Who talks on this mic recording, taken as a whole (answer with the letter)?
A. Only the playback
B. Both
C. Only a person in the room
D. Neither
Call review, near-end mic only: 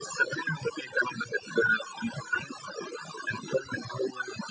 A